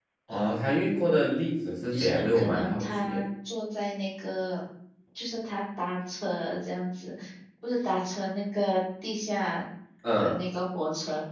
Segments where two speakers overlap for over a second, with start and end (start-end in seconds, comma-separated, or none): 1.9-3.2